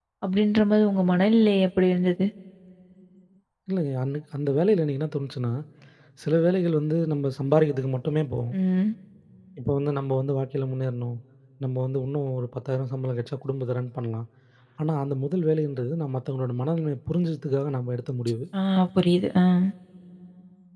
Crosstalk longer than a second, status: none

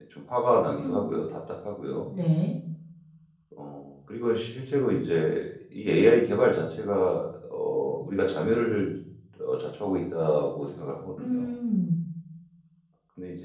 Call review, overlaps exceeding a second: none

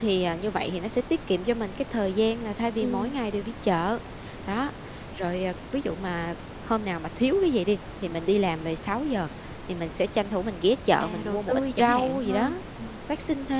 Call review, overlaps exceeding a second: present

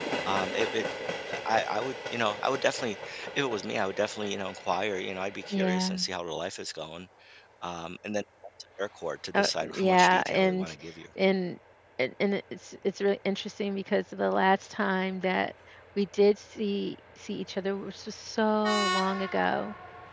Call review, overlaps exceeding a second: present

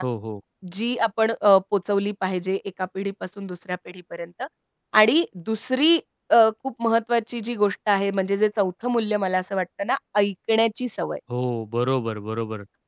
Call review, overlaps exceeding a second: none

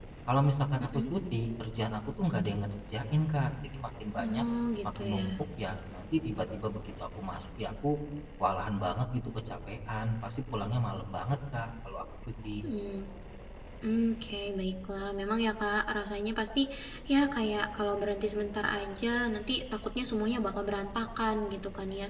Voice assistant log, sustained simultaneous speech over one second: none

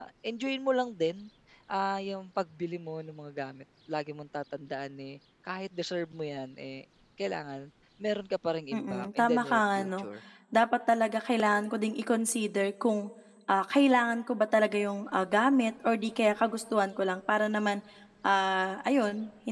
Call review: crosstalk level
present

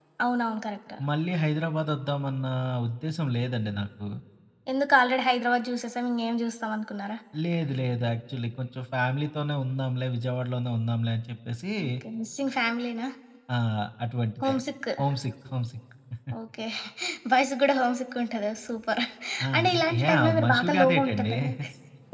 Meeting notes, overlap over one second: present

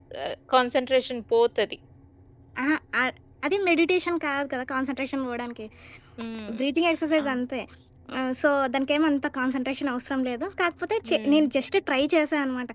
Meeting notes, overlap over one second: none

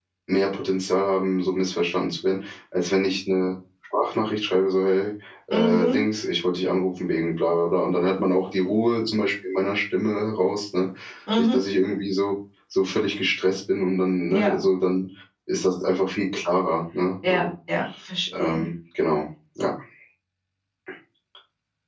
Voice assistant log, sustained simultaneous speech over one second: none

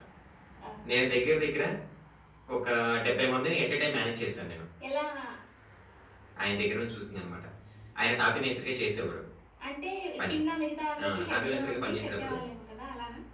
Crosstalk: present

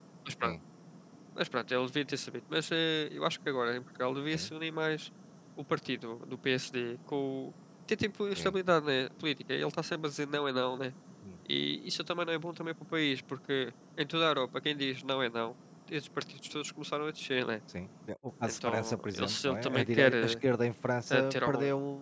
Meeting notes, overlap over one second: present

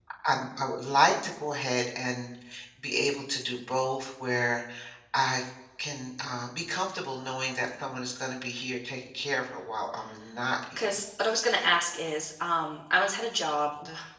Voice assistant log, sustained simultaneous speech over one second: none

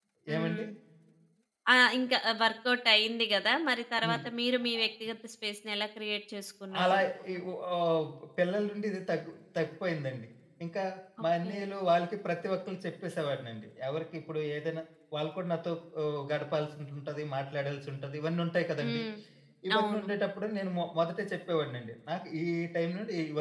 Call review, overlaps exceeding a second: none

